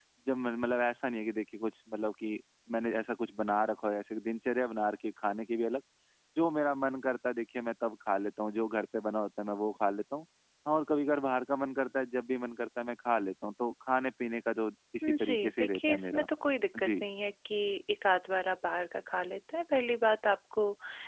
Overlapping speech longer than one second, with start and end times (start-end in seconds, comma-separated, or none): 15.0-16.3